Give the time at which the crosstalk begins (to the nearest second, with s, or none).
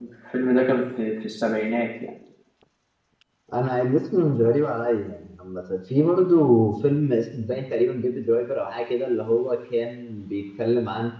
none